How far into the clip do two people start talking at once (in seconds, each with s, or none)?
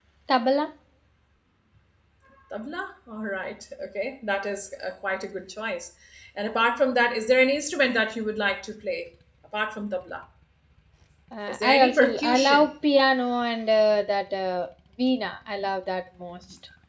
11.5 s